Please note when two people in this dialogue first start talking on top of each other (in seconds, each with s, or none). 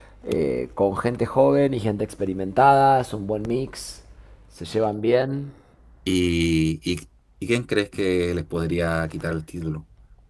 none